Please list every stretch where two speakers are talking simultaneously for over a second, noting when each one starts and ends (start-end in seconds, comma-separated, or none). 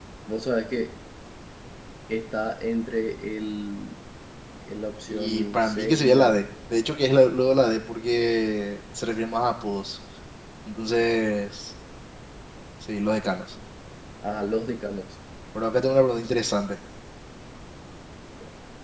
5.1-6.4